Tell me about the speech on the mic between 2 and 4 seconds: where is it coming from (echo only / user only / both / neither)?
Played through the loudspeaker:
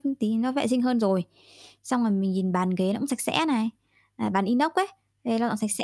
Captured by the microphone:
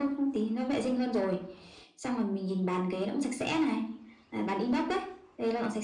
echo only